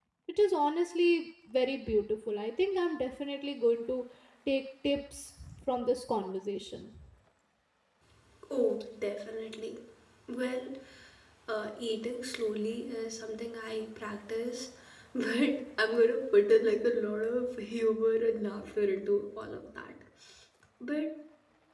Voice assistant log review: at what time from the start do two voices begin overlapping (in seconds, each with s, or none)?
none